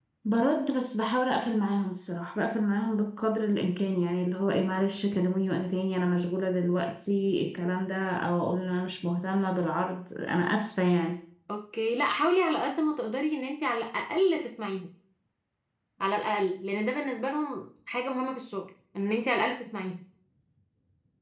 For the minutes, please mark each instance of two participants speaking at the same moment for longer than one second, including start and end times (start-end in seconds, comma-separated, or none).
none